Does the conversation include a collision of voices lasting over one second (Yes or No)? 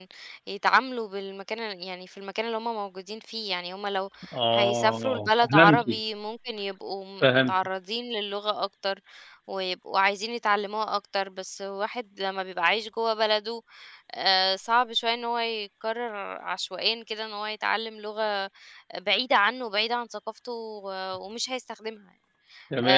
Yes